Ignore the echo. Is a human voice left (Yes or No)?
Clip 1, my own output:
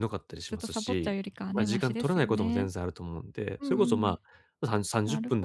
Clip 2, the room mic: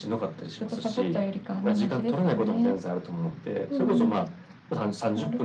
No